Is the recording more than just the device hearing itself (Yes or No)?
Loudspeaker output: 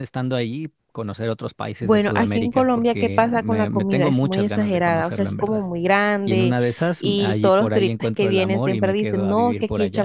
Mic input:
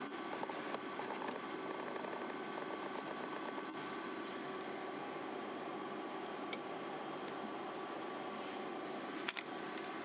No